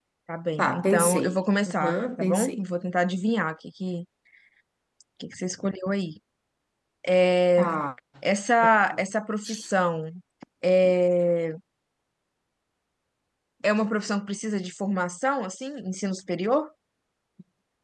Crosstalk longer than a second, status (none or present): present